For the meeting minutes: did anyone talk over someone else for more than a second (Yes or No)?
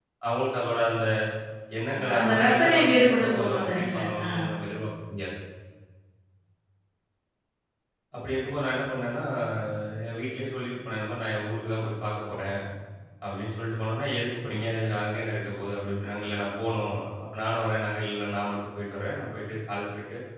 Yes